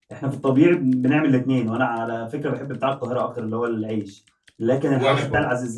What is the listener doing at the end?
listening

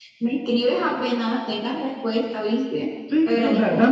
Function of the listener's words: taking over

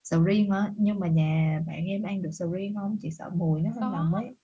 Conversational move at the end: taking over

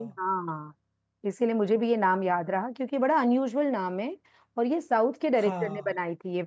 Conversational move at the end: listening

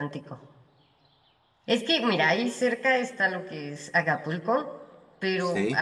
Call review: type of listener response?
listening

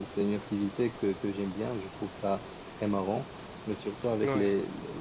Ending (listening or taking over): listening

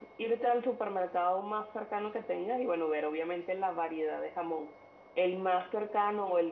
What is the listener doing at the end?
listening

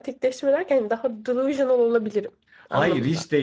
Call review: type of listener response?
taking over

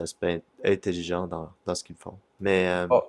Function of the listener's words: listening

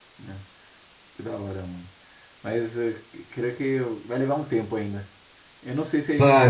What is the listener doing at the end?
taking over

